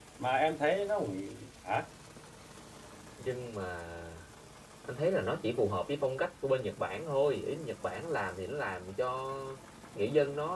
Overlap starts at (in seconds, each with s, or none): none